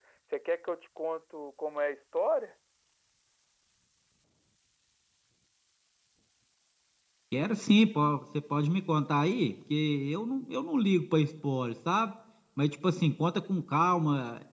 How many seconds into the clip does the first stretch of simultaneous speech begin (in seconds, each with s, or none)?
none